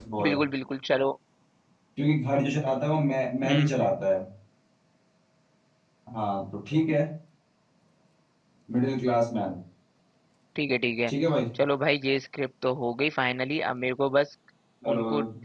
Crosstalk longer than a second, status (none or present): none